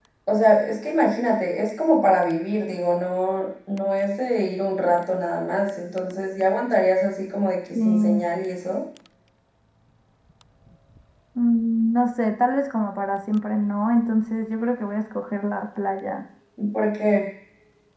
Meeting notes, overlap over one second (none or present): none